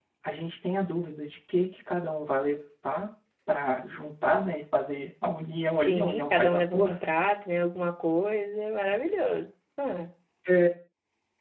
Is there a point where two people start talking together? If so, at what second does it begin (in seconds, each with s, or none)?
5.8 s